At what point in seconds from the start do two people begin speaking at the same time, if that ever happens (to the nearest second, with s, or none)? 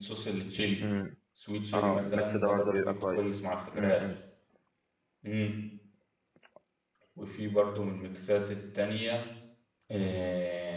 2 s